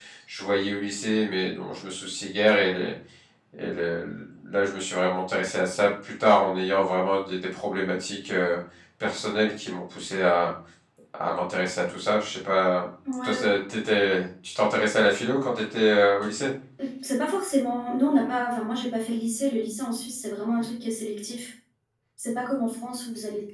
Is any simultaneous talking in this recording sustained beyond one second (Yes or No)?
No